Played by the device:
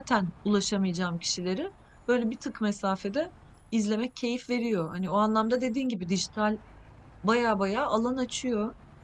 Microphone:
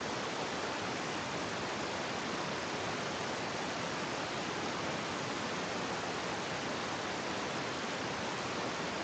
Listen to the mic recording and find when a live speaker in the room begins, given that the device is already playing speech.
none

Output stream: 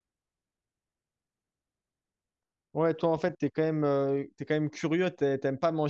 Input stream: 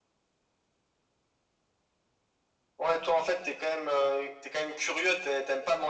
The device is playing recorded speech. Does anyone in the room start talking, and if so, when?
none

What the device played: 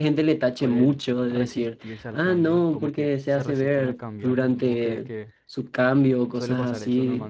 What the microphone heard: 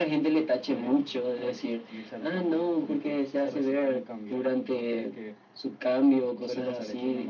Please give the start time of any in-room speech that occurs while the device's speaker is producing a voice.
none

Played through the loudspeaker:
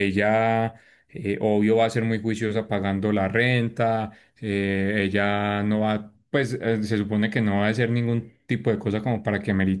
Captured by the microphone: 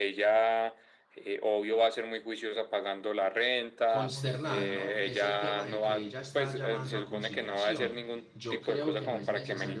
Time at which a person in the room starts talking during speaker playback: 3.8 s

